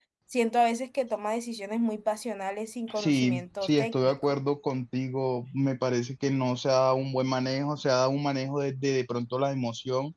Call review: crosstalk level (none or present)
present